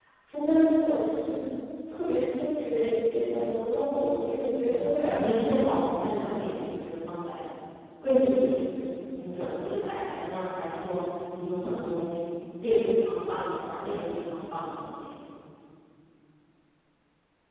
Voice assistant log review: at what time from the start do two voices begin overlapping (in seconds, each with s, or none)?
4.7 s